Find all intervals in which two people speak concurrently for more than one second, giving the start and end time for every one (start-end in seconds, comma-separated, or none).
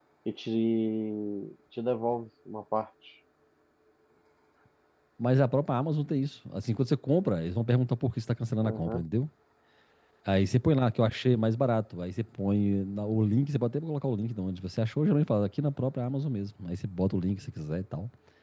none